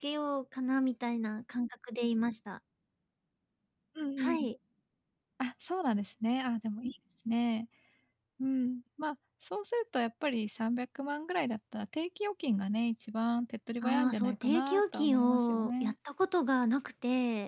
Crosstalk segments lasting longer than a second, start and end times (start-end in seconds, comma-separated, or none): 13.8-15.9